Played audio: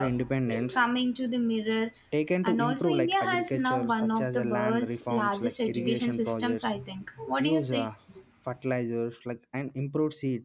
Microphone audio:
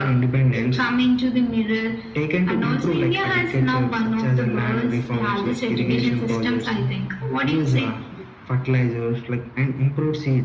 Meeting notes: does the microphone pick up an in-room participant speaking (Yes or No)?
No